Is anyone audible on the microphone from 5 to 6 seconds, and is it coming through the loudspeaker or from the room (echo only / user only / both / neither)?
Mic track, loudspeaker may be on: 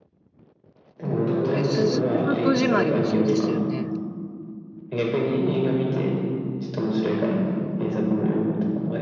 echo only